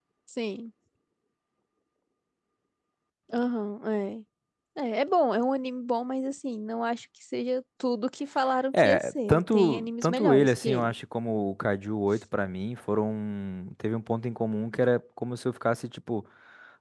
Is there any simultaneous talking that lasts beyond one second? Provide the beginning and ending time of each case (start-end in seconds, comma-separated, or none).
8.7-10.9